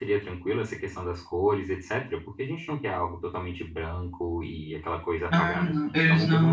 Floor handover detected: Yes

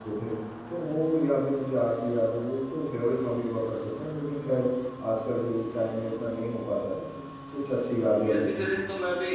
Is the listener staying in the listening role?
No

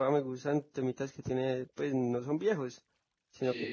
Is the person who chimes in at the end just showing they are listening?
Yes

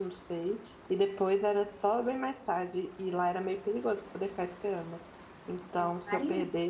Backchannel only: Yes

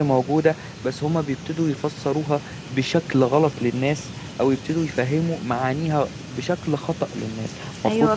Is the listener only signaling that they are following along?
No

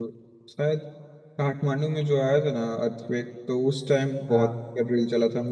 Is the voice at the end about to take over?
No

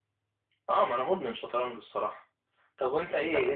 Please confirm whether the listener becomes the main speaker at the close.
No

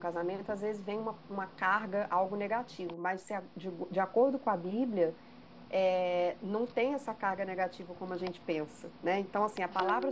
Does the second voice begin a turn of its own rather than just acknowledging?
No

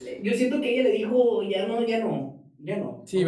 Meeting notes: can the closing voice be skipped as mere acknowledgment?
No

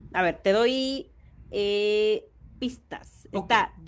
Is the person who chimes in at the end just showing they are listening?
Yes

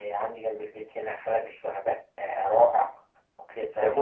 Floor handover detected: Yes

